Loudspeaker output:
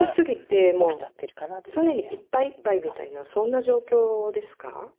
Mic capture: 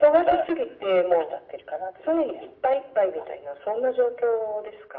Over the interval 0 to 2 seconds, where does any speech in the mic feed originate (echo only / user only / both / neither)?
echo only